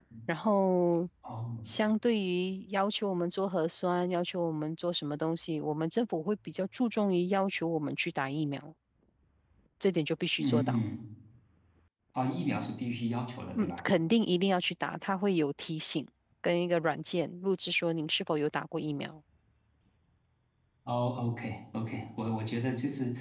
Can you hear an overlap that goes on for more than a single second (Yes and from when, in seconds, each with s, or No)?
No